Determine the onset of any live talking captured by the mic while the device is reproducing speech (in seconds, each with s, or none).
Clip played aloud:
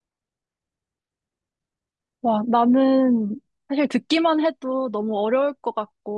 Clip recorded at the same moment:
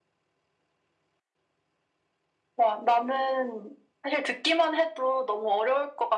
none